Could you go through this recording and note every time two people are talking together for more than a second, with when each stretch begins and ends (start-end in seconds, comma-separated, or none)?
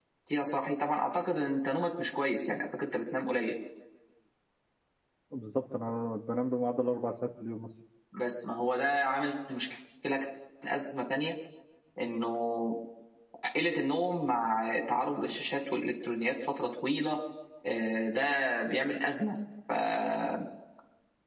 none